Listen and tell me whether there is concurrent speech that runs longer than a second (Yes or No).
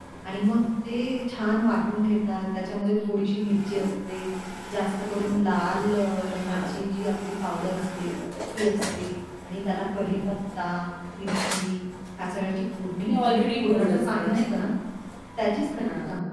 Yes